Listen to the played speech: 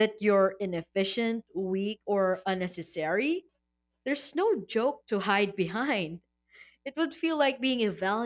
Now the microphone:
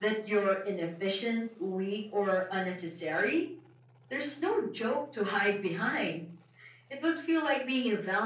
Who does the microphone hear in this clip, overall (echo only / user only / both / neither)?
echo only